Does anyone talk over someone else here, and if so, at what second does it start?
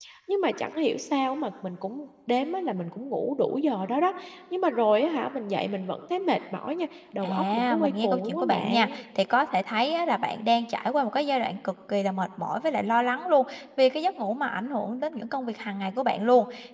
7 s

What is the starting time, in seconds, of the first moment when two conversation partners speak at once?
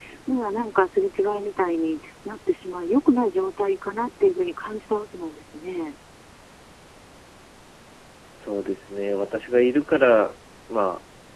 none

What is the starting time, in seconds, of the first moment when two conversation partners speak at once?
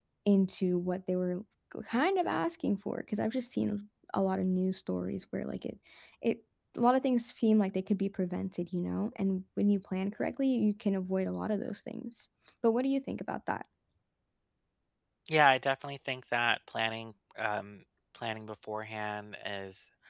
none

